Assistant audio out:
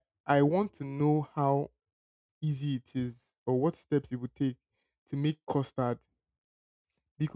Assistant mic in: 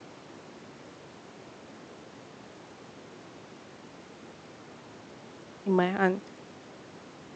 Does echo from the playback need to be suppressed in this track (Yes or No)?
No